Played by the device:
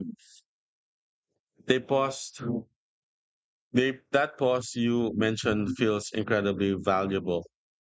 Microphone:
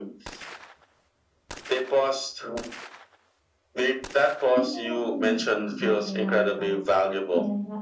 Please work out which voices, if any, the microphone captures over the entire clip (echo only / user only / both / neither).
both